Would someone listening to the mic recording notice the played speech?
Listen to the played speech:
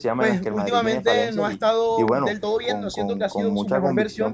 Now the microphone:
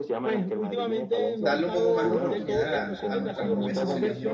Yes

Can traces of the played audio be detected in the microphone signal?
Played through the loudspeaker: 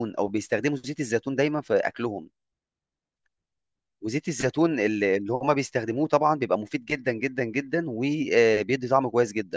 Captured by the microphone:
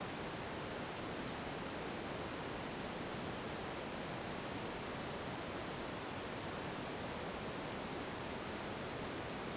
No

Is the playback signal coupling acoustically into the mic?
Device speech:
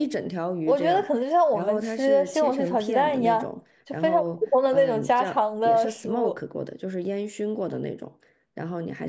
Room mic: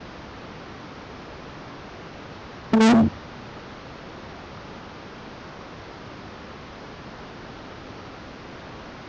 No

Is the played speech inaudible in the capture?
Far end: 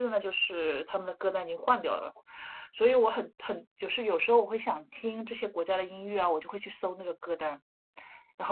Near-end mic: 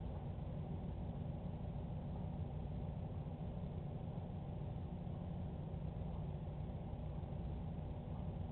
Yes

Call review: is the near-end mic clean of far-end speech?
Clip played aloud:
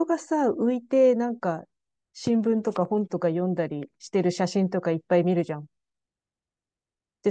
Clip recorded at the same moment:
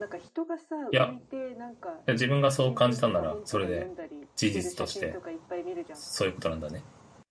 No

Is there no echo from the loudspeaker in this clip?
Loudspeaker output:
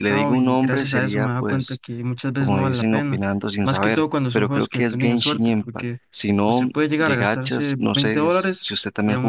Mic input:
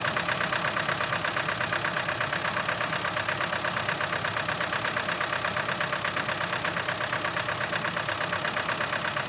Yes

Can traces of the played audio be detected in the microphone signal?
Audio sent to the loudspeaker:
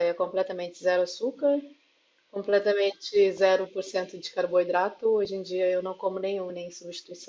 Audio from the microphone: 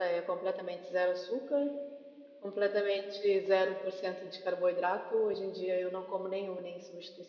Yes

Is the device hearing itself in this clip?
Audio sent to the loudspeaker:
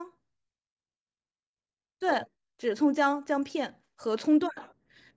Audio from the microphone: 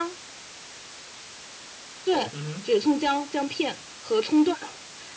Yes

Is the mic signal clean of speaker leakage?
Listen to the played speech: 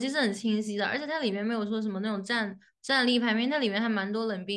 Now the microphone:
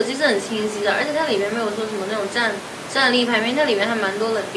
No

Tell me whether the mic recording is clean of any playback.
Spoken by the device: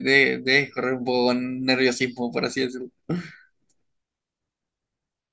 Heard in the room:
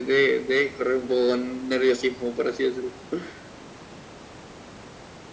No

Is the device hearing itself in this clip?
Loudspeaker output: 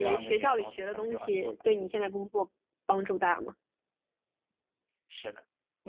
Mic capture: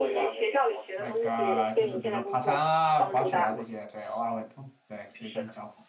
Yes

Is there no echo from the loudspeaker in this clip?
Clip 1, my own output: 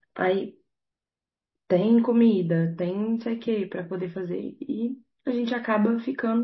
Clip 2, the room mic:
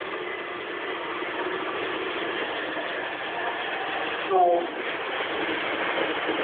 Yes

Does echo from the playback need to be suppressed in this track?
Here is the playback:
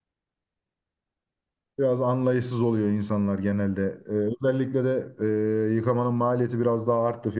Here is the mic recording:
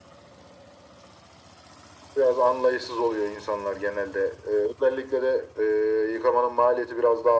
Yes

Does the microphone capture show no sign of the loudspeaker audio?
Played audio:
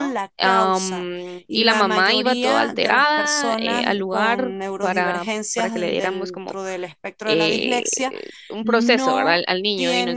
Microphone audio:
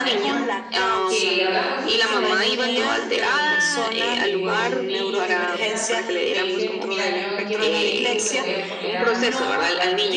No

